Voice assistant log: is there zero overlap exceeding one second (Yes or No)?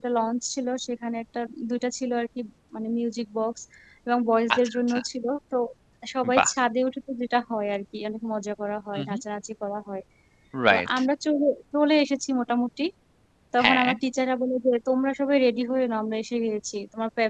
Yes